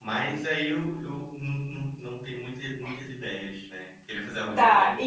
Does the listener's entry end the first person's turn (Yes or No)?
Yes